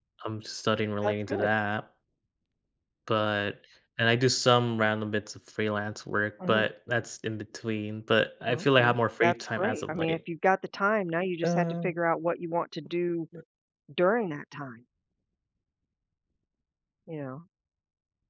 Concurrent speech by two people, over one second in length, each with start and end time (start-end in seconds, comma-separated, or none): 8.5-10.2